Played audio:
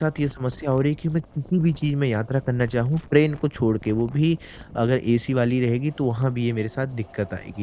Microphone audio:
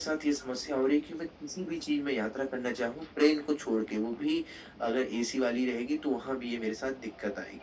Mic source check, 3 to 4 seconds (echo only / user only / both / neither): echo only